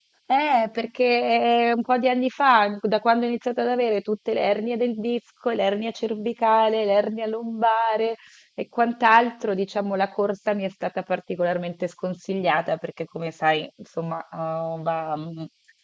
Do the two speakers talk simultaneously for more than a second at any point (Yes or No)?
No